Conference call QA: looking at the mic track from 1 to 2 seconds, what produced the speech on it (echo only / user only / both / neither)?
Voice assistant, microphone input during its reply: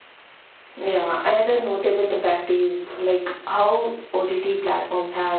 user only